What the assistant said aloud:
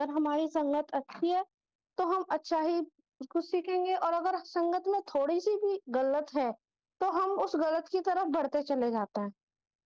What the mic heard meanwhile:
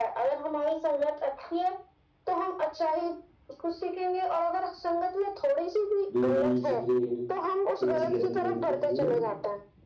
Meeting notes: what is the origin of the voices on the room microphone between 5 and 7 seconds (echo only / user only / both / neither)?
both